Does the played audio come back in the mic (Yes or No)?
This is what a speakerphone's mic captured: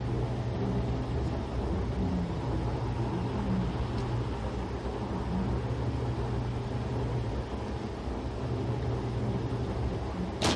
No